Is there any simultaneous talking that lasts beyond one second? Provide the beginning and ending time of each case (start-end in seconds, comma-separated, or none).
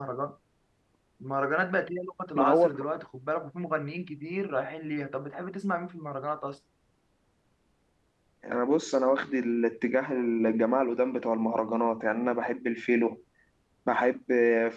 none